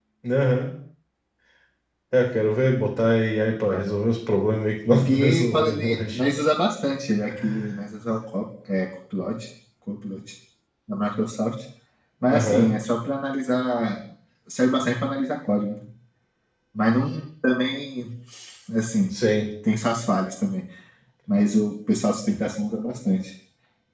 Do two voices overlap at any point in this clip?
Yes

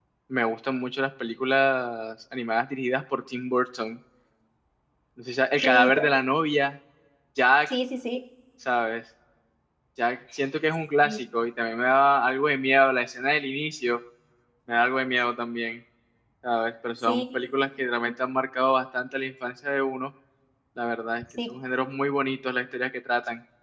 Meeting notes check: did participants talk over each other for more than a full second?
No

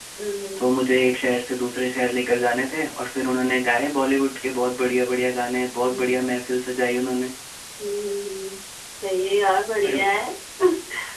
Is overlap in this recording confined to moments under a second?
Yes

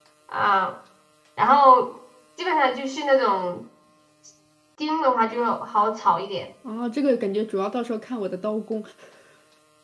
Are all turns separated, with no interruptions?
Yes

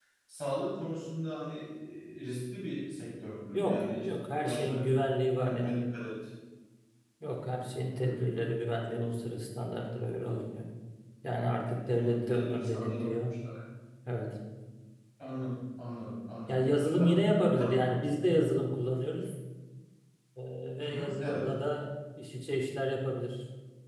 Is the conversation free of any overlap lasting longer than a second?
No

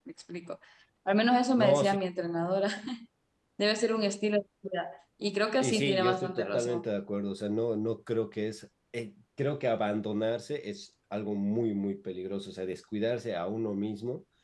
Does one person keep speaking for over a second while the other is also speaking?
Yes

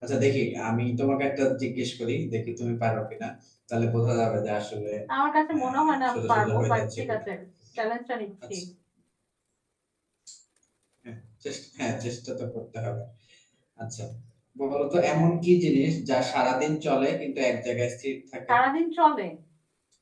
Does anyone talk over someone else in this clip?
Yes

